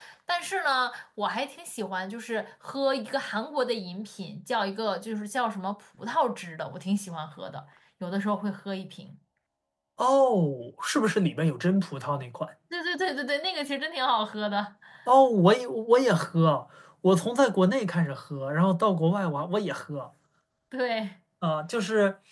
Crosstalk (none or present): none